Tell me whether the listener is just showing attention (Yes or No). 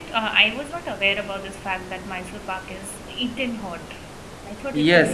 No